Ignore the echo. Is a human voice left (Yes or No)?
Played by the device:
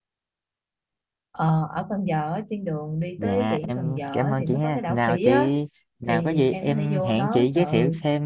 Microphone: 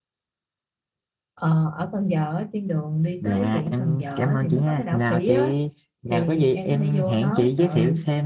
No